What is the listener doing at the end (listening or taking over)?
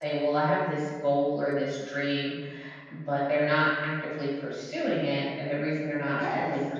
listening